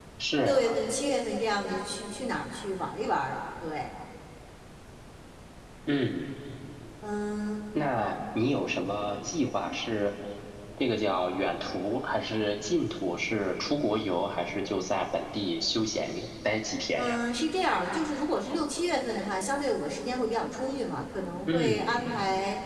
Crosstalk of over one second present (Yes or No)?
No